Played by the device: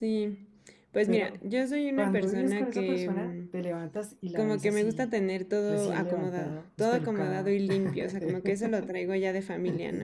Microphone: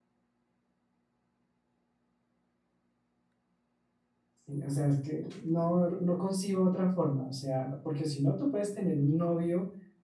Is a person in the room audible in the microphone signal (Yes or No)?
Yes